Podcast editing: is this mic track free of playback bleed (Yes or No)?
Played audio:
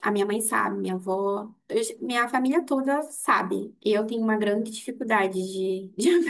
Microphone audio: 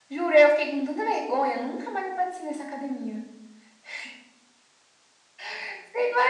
Yes